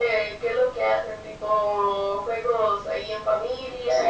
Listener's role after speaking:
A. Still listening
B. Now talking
B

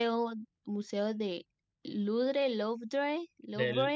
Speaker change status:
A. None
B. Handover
B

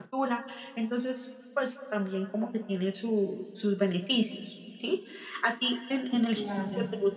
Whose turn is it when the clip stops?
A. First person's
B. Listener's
A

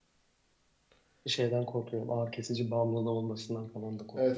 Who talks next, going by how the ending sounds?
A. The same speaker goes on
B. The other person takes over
B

